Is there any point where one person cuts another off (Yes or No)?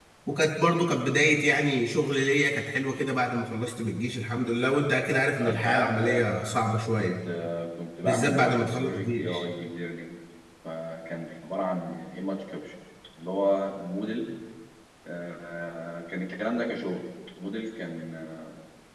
Yes